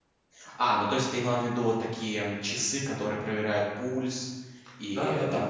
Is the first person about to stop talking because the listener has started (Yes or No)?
Yes